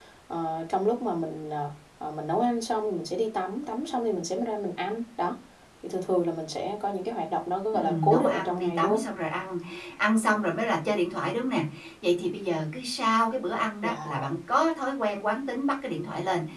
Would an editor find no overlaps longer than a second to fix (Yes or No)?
No